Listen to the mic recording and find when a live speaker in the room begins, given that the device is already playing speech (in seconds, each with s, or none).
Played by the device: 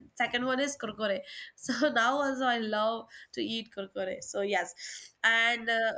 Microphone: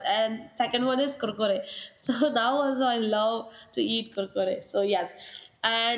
none